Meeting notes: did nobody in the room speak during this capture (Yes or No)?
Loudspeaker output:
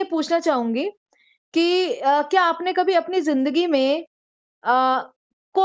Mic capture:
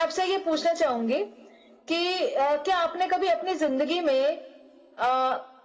Yes